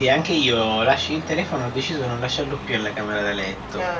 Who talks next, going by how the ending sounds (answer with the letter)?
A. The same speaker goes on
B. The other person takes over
A